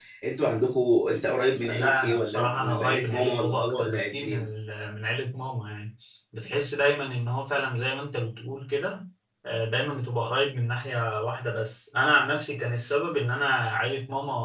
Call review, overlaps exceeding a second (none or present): present